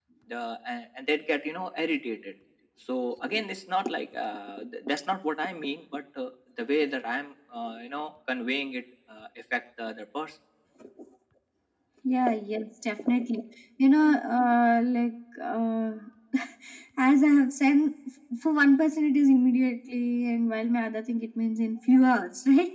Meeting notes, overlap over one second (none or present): none